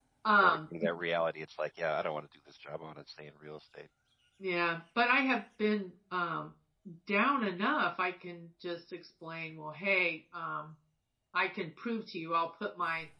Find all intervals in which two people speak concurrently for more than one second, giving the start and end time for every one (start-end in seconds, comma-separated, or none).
none